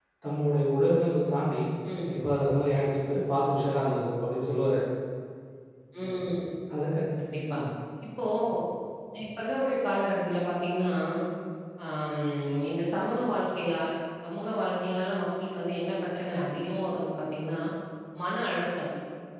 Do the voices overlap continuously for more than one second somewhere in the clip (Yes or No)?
No